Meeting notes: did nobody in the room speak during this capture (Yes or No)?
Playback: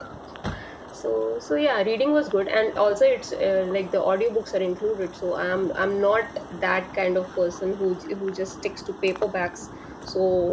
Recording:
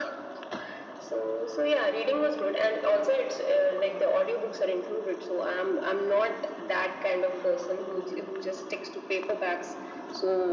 Yes